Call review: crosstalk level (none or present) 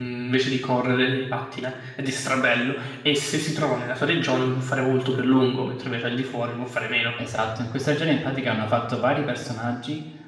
none